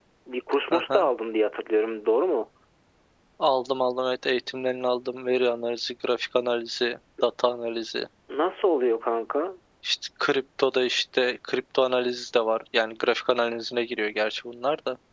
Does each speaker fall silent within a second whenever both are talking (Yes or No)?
Yes